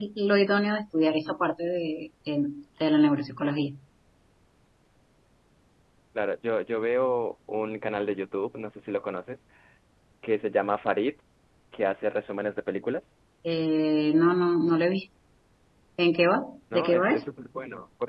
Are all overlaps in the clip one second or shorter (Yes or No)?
Yes